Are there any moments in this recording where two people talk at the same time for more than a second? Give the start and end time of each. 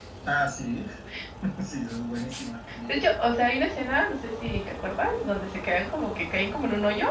none

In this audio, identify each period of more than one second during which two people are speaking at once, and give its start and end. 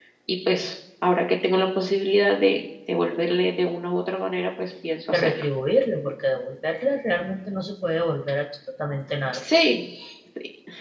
none

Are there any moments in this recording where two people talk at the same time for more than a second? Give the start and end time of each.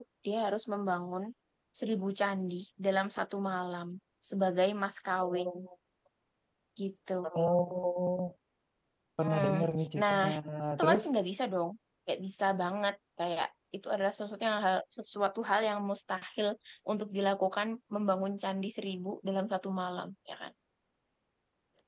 none

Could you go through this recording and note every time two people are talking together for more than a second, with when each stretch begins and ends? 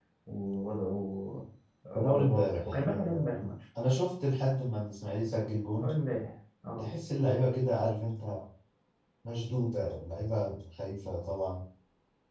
1.9-3.4

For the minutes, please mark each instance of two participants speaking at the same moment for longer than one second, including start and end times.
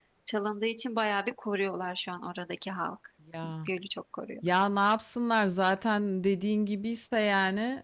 none

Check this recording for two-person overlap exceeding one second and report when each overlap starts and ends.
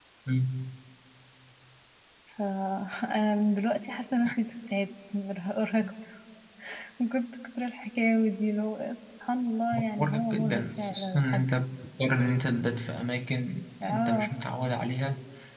10.0-11.5

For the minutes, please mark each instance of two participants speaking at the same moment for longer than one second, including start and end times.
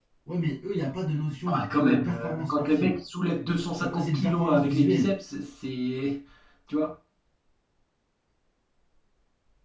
1.4-2.9, 3.8-5.1

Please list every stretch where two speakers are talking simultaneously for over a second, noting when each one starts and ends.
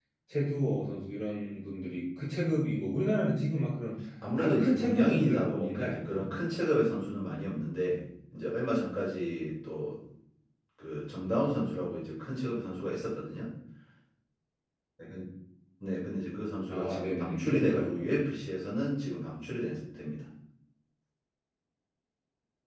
4.3-6.3, 16.7-18.3

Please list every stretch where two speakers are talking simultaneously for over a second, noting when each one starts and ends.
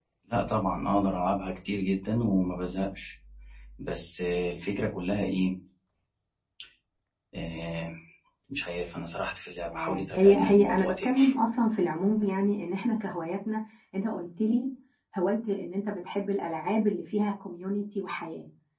9.7-11.1

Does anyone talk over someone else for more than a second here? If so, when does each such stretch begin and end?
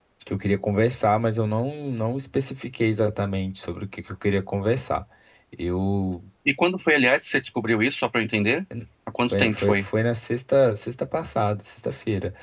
none

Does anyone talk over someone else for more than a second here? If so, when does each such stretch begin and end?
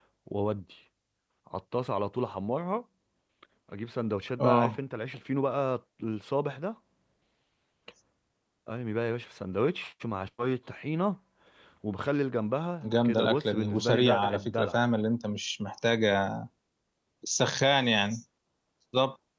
12.8-14.8

